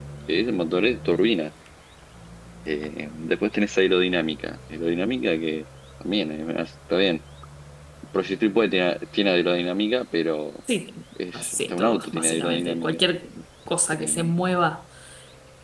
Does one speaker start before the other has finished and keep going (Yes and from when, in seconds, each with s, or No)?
Yes, from 11.4 s